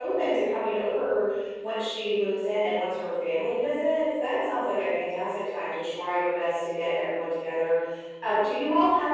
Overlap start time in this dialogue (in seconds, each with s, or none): none